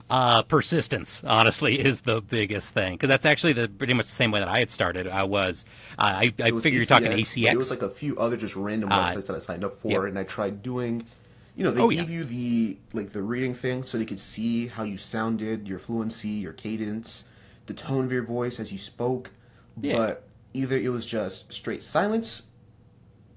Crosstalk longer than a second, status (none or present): present